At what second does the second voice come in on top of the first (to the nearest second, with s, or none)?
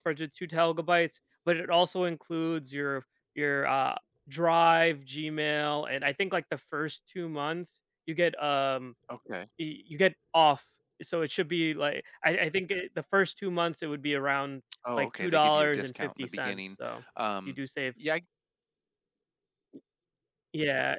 15 s